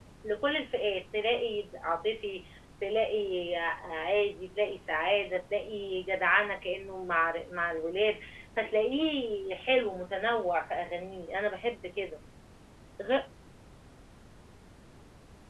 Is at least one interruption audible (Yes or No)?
No